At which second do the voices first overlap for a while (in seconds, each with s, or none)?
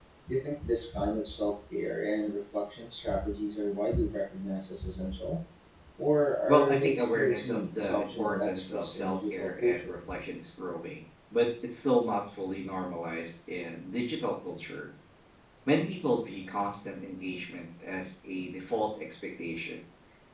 6.5 s